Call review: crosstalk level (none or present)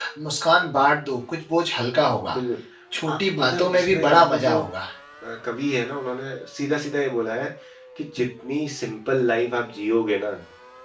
present